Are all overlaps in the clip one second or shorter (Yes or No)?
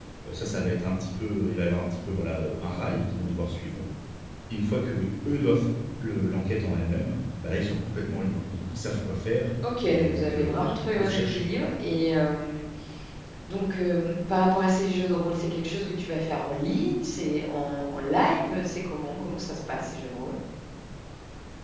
No